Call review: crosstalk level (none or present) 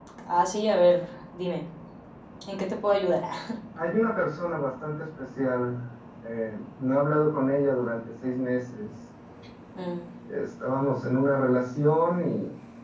none